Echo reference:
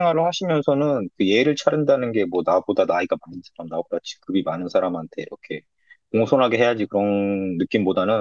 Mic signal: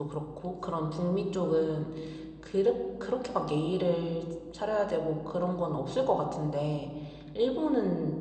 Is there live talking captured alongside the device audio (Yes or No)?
Yes